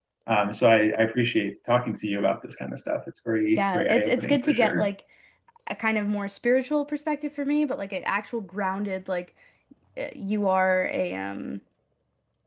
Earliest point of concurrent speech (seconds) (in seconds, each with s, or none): 3.6 s